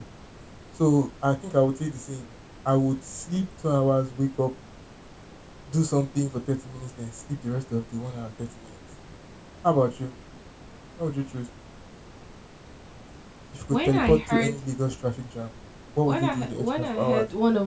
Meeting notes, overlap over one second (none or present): present